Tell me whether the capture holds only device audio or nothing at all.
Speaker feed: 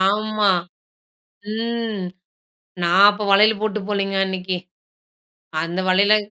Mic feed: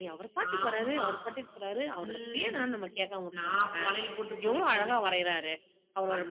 No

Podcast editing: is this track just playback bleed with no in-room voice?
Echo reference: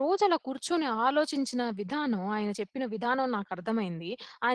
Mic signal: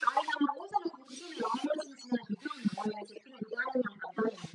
Yes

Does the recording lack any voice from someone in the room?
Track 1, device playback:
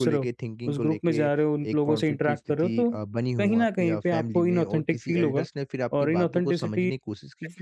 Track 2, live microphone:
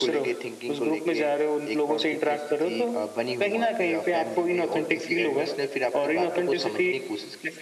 Yes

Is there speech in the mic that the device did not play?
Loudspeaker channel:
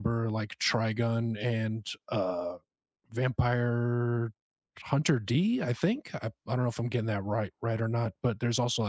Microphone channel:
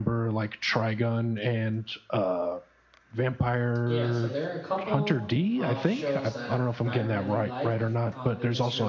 Yes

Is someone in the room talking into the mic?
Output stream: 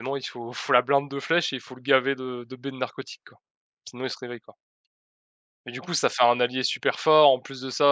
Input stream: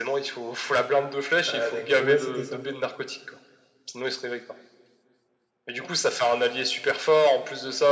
Yes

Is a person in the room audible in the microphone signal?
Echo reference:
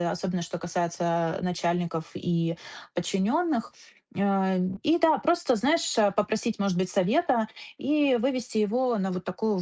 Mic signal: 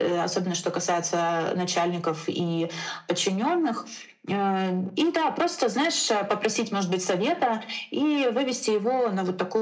No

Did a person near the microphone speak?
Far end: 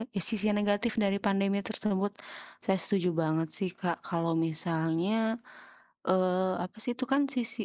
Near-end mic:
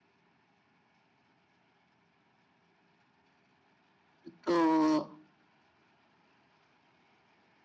Yes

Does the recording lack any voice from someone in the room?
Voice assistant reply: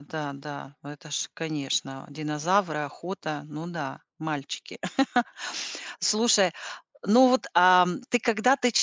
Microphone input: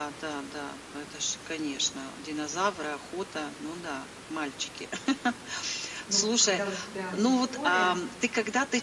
No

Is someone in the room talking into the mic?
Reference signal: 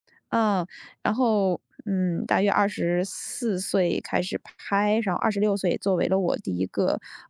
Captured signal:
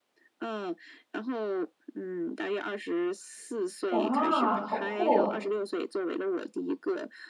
Yes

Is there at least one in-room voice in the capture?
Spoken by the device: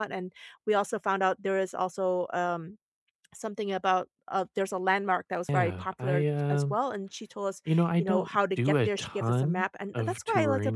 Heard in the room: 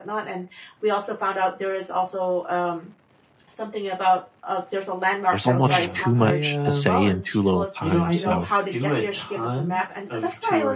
Yes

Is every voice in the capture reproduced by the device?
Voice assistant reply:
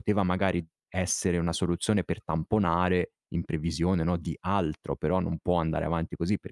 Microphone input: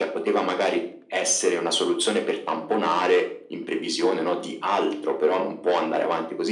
Yes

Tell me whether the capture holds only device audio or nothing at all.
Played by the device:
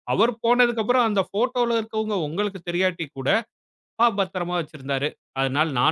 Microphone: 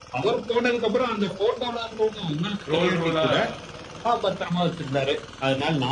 No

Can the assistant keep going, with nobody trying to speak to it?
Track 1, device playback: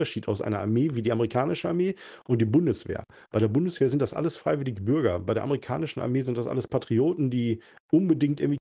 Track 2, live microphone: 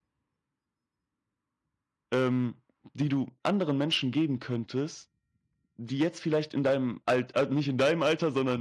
No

